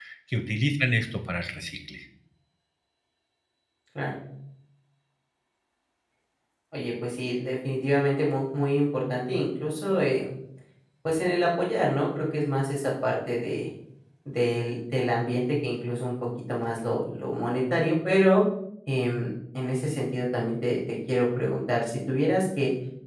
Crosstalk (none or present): none